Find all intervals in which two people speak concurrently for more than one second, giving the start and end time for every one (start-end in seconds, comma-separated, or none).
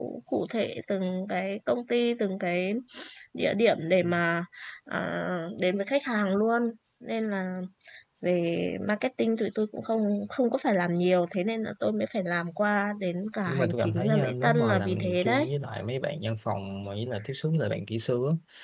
13.5-15.5